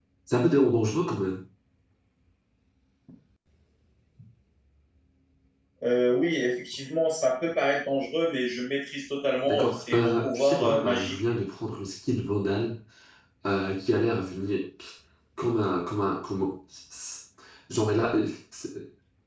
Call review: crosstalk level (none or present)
present